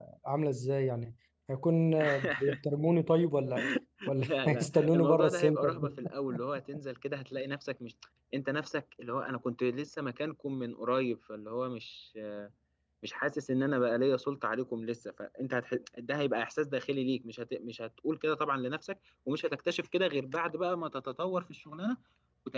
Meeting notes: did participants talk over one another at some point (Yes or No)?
Yes